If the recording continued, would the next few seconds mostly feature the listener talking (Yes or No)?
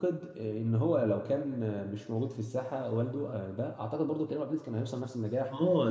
Yes